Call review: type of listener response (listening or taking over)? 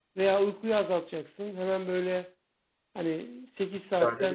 listening